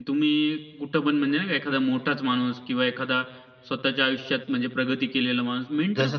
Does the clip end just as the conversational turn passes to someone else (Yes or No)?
Yes